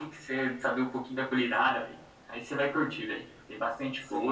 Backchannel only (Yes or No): No